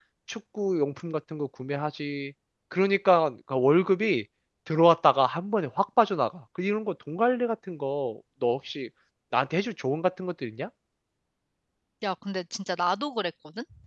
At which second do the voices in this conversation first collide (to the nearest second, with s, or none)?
none